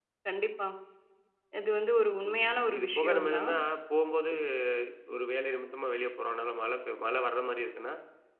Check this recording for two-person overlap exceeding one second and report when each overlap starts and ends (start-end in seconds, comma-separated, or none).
2.3-3.5